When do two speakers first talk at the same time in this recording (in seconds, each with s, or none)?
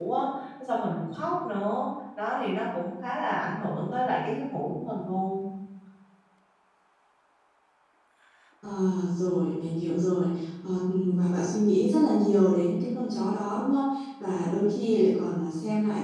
none